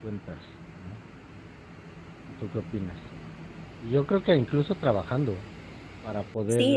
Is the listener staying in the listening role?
No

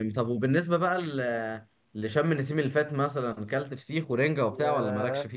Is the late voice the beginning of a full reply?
Yes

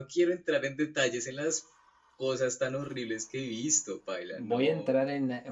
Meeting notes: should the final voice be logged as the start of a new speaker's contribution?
Yes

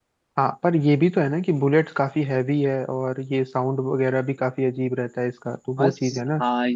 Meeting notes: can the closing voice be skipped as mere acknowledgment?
No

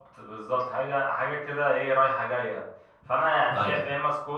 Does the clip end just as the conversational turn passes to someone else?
No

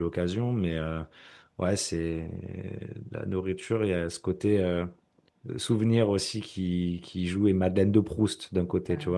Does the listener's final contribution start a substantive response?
Yes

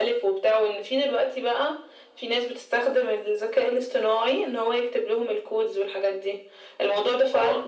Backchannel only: Yes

